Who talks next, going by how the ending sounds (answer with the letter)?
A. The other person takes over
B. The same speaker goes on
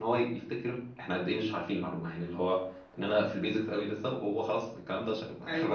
A